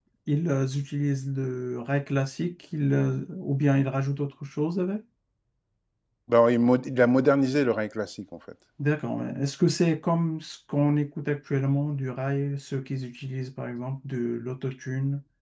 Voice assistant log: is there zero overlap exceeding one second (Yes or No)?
Yes